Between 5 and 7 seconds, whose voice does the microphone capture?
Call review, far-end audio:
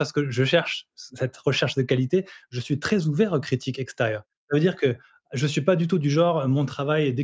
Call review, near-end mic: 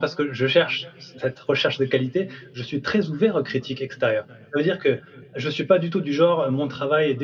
echo only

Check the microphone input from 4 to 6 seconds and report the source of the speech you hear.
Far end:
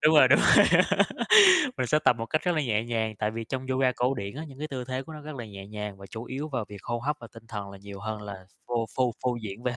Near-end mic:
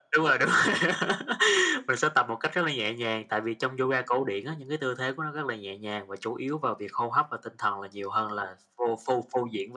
echo only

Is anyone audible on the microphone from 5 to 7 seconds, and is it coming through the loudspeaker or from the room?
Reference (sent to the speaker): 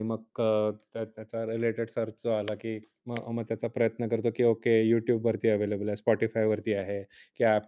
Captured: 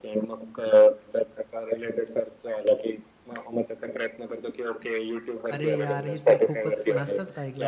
both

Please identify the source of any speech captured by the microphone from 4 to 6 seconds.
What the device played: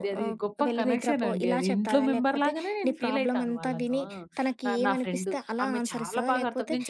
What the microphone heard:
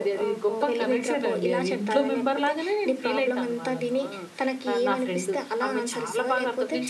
echo only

